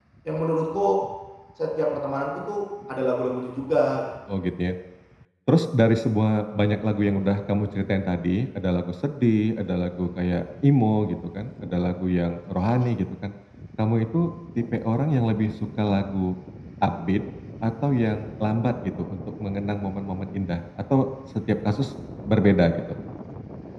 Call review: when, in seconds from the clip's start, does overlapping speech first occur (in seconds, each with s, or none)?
none